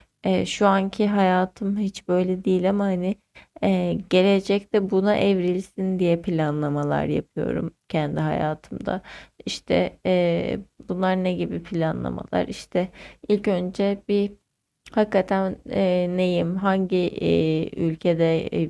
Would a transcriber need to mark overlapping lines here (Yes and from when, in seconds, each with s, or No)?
No